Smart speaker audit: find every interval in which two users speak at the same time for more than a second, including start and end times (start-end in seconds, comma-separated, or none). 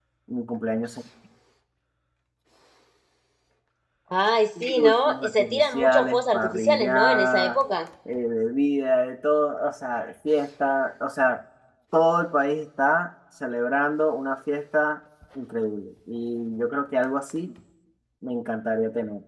4.6-7.6